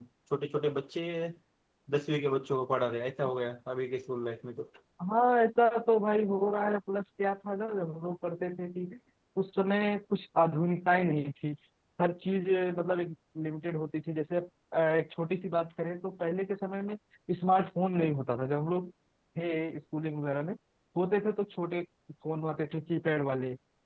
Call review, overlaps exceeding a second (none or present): none